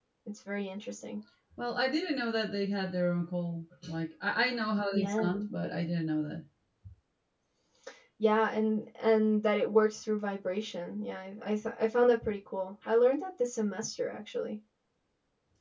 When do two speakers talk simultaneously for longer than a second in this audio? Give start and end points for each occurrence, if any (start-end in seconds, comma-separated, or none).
none